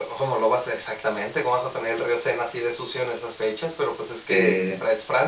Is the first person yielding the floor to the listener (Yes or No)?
No